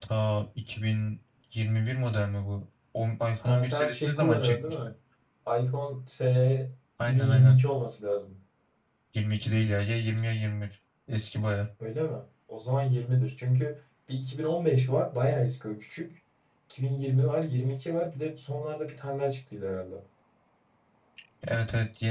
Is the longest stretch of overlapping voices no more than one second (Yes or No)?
No